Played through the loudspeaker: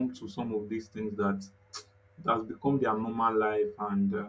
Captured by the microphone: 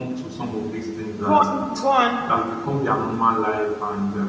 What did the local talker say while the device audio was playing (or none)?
Go on, go on.